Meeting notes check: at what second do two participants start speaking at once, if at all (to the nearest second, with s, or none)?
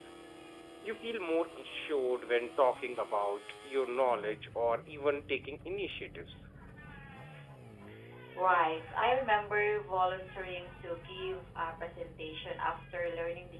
none